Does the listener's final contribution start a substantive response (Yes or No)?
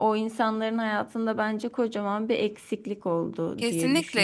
Yes